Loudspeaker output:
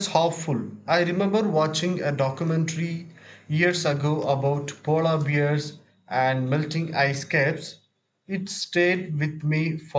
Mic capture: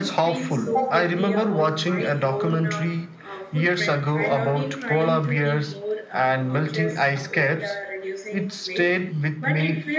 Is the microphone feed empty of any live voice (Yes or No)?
No